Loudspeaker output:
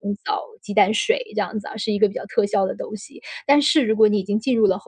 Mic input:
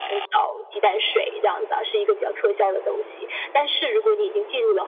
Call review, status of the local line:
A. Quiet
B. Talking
A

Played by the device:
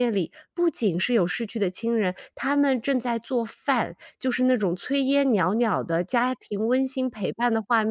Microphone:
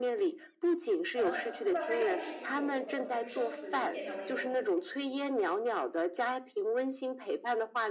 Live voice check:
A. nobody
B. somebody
B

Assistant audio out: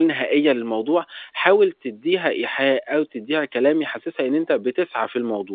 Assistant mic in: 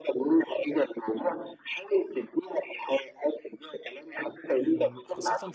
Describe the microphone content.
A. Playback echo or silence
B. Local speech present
B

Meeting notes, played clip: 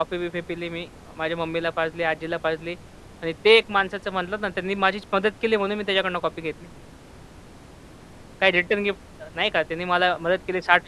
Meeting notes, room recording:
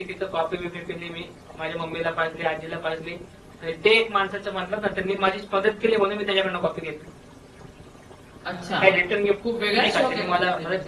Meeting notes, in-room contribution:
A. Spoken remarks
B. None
A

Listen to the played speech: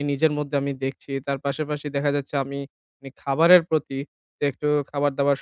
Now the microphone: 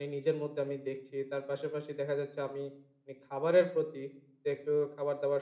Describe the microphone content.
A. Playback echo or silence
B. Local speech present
A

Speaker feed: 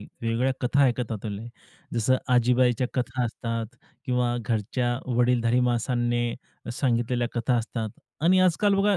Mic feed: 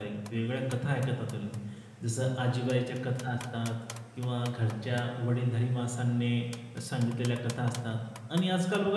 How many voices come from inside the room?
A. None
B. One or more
A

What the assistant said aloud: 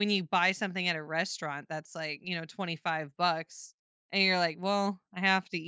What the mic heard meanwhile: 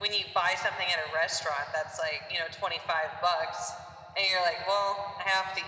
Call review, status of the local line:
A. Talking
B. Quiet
B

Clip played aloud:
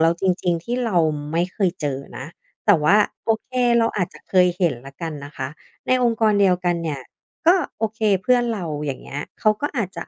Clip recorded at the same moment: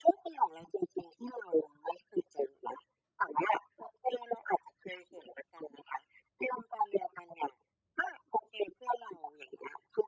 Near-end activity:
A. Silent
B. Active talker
A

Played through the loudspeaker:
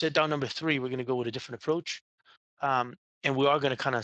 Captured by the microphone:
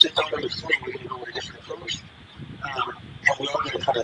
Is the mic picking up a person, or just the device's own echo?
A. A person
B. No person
B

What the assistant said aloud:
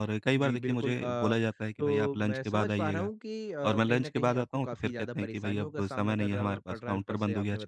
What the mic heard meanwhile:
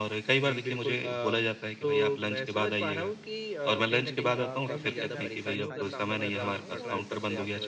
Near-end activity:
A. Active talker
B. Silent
A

